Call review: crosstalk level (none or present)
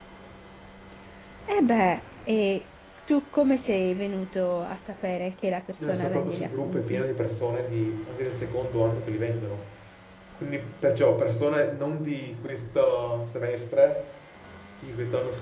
present